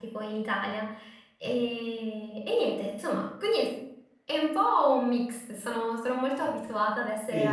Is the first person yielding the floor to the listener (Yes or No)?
Yes